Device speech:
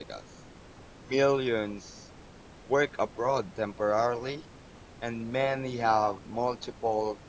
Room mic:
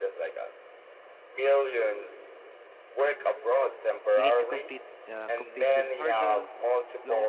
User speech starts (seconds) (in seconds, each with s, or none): 4.2 s